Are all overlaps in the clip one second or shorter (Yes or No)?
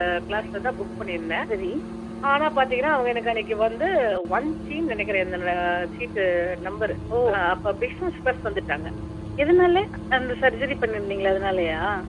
Yes